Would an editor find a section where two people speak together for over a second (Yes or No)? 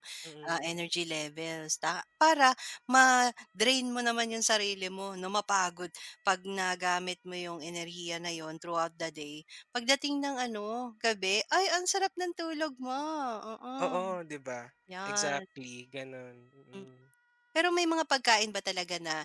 No